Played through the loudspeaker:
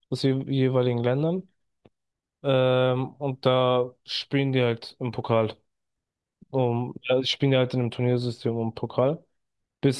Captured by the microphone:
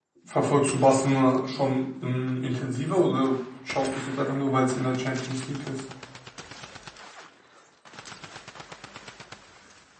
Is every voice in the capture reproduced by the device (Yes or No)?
No